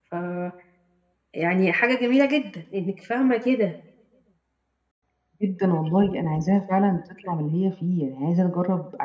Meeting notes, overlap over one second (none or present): none